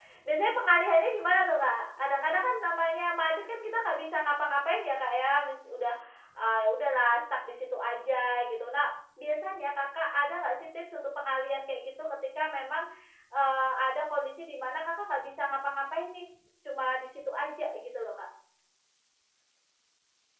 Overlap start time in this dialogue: none

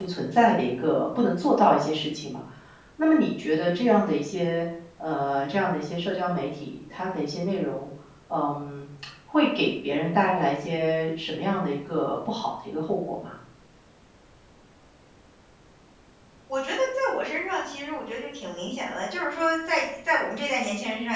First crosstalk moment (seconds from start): none

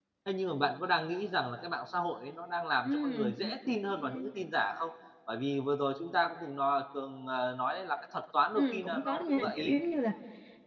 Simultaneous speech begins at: 2.8 s

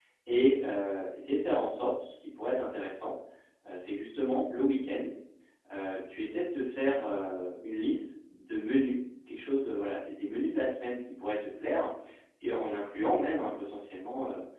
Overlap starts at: none

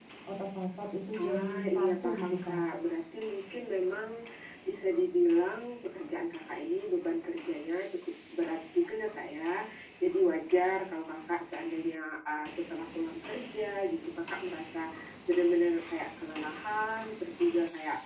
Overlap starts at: 1.2 s

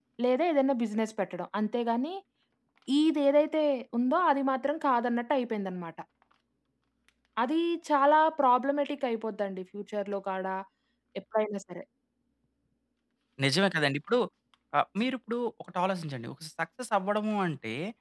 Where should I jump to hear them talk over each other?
none

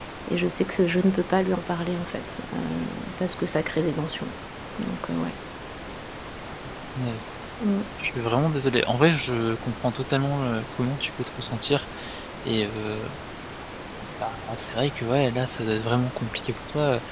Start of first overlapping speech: none

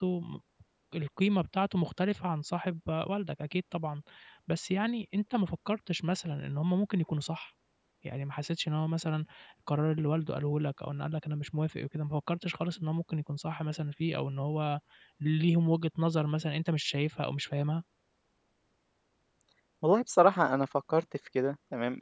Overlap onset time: none

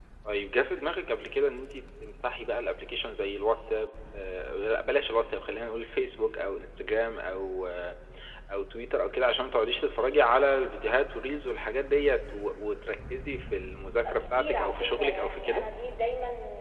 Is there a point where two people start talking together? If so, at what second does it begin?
14.0 s

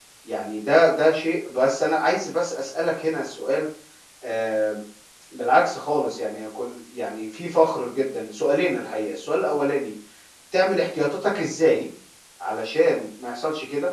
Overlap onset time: none

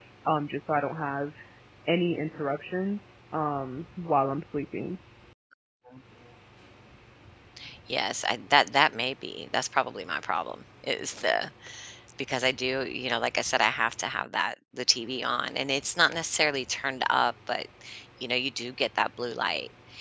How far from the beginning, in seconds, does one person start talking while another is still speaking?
none

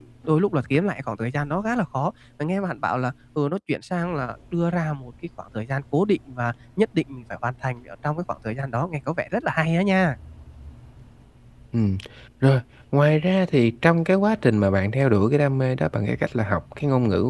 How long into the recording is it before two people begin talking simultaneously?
none

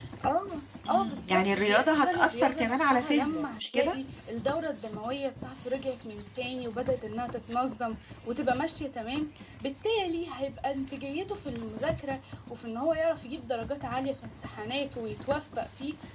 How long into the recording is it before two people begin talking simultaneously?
0.9 s

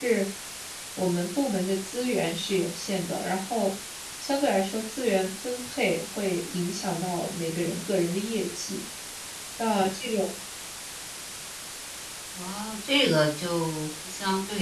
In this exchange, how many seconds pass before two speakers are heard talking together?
none

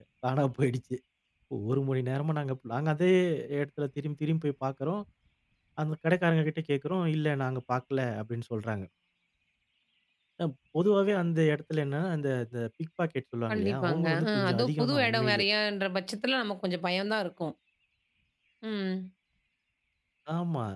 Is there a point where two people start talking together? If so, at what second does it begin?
13.5 s

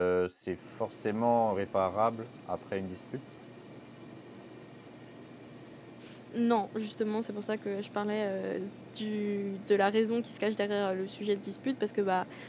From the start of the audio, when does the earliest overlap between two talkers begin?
none

